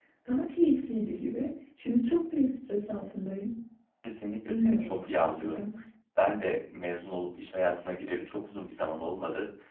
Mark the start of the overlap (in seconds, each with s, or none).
4.5 s